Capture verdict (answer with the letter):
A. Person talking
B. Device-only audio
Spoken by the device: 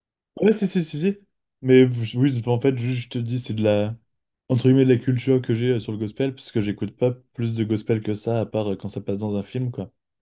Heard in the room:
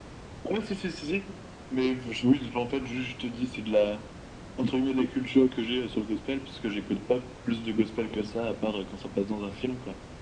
B